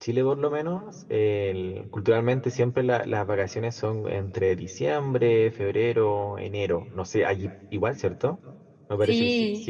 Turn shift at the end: Yes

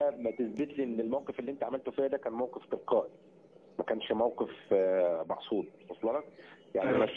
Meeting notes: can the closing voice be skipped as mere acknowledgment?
Yes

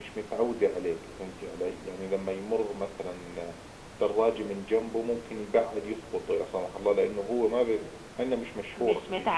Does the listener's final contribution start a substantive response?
Yes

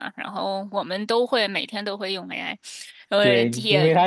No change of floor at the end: No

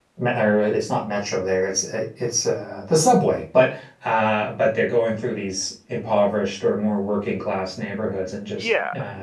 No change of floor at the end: No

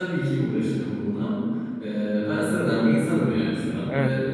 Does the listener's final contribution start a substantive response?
No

